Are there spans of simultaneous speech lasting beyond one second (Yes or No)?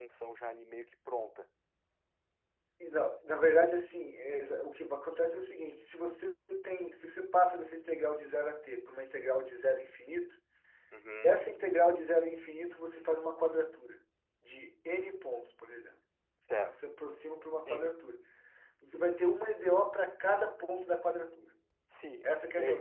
No